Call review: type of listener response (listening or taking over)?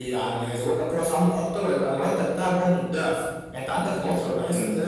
listening